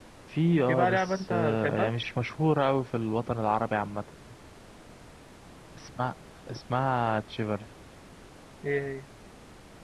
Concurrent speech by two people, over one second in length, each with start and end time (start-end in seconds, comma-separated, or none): 0.7-1.9